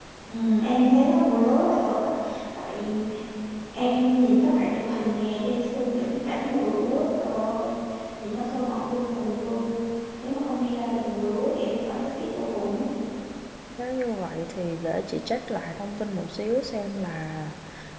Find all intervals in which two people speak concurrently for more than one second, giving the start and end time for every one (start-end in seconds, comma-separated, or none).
none